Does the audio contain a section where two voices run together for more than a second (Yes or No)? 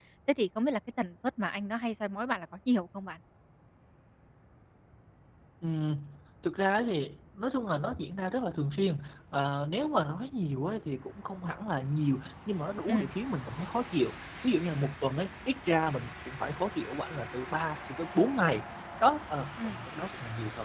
No